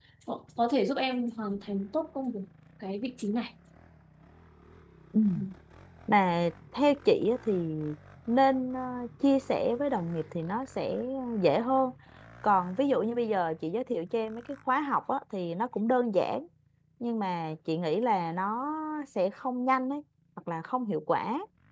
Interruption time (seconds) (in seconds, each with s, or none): none